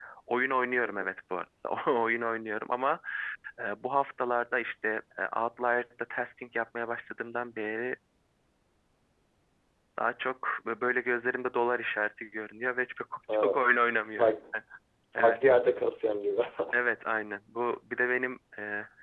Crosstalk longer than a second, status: none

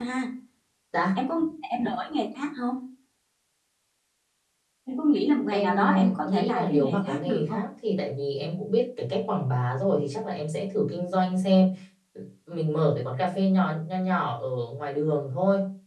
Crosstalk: present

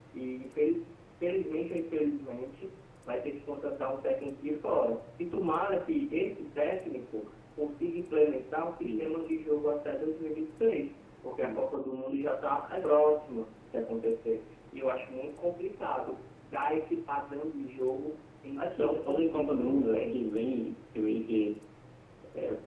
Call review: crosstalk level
present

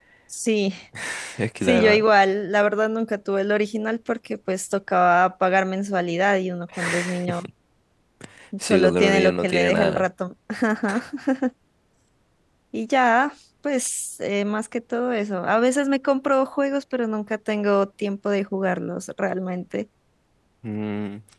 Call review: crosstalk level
present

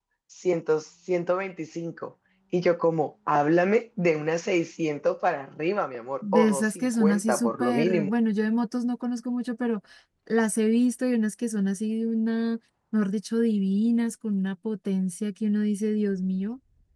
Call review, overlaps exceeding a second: present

